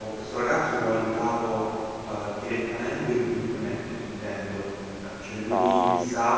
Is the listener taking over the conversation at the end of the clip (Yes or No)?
No